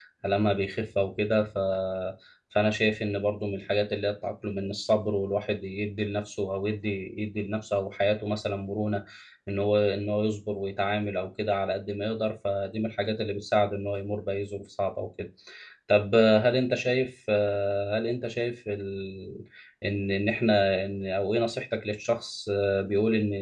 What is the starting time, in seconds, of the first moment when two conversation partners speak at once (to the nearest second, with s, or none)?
none